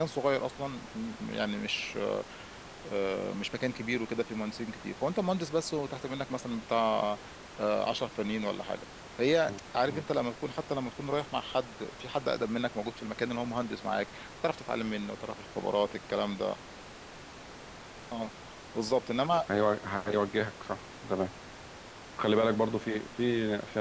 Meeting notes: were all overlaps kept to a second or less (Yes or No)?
Yes